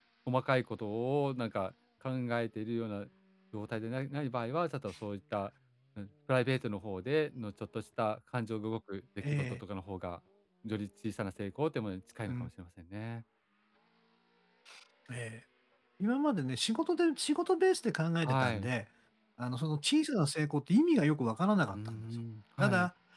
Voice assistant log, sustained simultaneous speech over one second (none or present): none